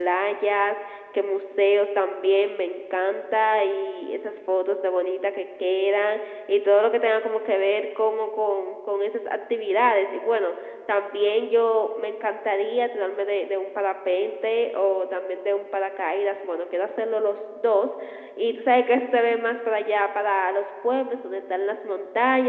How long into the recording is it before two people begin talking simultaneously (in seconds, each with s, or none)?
none